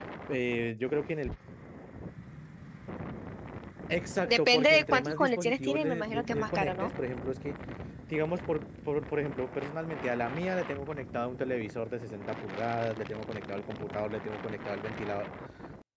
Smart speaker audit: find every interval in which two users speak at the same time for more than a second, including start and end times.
4.2-6.9

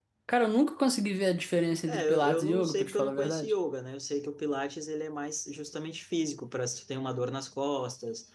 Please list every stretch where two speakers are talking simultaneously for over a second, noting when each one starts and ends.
1.9-3.5

